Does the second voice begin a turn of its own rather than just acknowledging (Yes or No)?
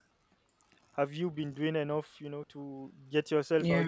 No